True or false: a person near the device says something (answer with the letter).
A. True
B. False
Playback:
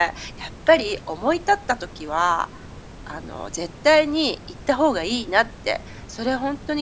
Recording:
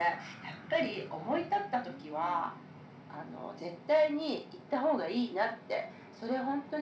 A